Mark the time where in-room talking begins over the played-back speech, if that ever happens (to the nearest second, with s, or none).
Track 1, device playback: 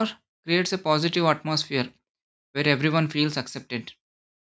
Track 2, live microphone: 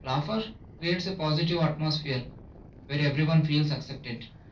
none